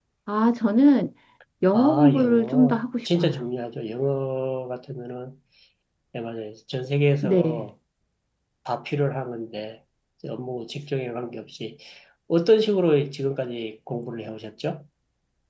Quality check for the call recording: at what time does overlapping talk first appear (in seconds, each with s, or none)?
1.7 s